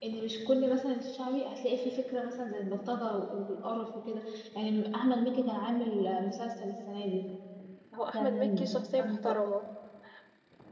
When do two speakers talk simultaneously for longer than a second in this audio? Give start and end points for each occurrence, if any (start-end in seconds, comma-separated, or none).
8.1-9.3